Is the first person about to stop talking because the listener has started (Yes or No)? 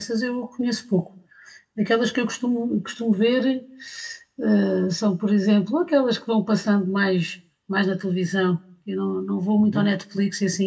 No